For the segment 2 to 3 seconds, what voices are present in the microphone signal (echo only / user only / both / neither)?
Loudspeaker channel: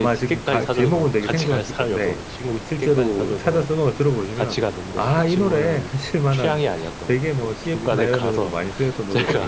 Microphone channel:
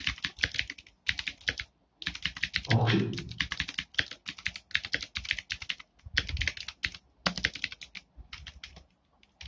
user only